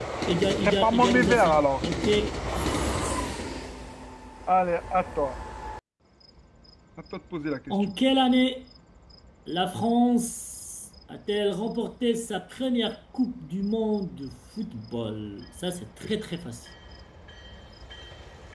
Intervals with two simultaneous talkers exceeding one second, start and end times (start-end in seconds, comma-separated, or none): 0.6-1.8